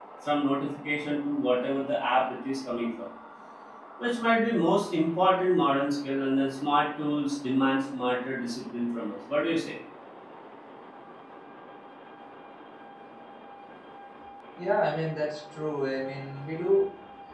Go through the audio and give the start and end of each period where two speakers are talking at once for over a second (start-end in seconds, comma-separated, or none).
none